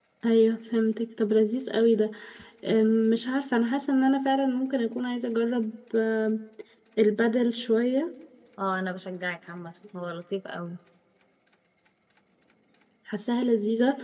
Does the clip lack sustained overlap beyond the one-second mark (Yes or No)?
Yes